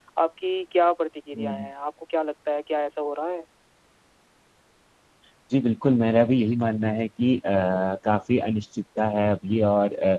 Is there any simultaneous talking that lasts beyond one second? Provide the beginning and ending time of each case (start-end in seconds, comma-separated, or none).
none